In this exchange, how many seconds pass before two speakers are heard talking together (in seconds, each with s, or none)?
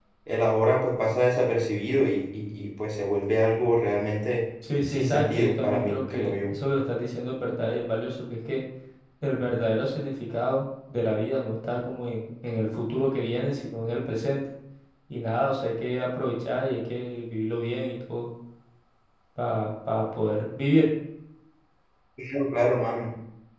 4.9 s